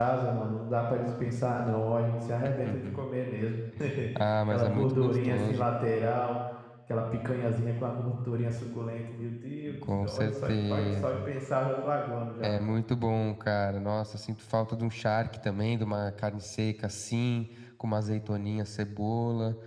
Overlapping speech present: Yes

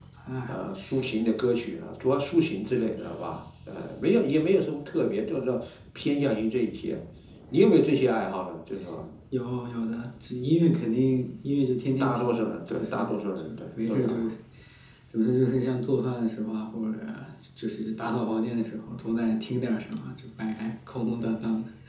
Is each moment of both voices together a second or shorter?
No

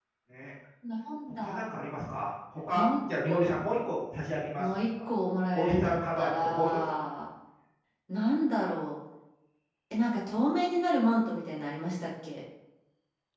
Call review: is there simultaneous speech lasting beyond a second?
Yes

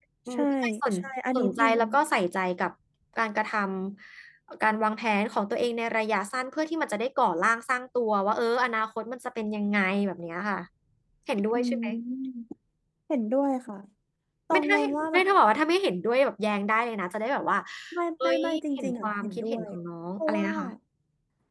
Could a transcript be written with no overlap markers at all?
No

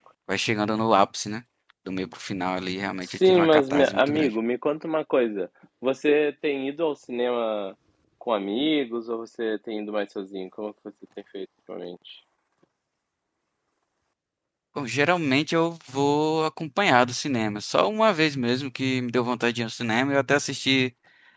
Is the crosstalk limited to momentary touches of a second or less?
No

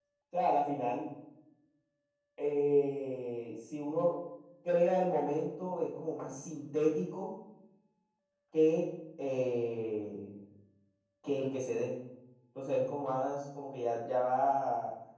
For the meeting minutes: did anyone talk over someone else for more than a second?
No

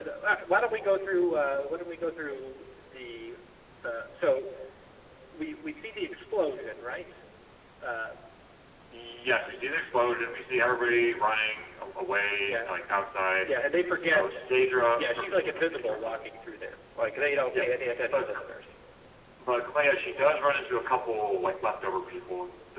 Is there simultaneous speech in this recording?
Yes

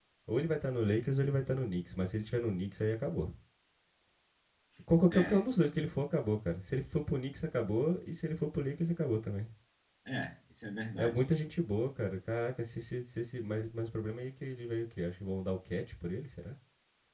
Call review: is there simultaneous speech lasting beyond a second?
No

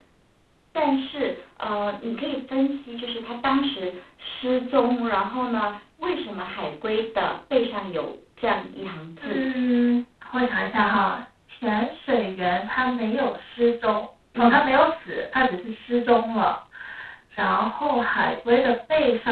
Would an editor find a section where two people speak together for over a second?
No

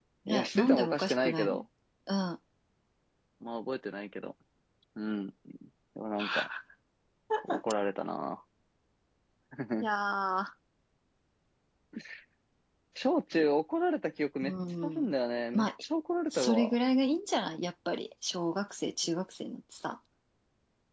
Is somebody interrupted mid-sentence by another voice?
Yes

